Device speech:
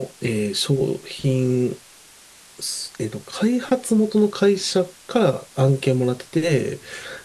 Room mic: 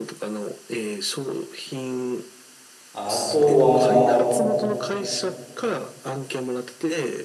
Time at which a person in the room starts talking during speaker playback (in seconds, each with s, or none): 2.9 s